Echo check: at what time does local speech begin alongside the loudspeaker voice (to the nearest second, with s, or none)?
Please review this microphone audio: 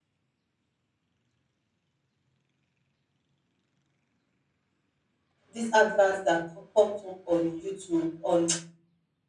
5 s